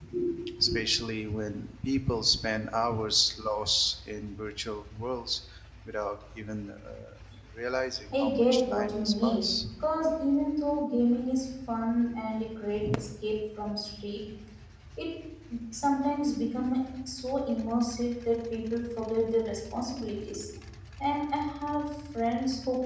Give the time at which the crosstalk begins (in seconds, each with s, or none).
8.1 s